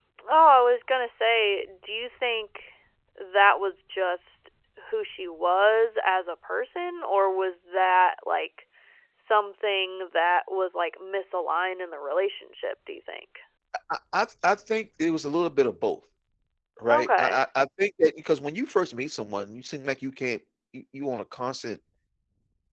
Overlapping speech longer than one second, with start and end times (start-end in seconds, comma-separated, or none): none